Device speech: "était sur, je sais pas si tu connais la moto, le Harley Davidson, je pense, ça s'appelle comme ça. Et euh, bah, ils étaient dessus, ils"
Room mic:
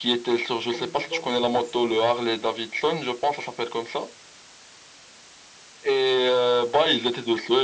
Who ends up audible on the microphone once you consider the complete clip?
both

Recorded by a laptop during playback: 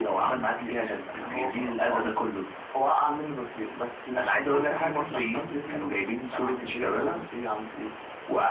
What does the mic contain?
echo only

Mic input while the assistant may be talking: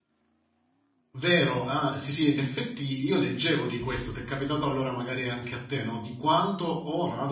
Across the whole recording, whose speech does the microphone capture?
user only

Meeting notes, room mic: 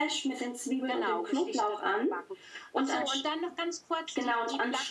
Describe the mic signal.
echo only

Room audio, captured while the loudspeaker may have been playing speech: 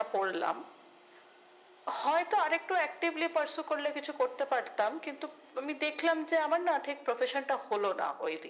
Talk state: echo only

